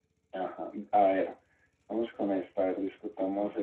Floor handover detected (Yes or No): No